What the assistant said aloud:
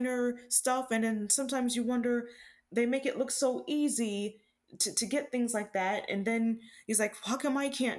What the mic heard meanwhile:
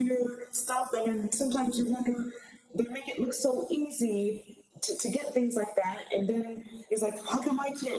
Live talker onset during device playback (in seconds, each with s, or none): none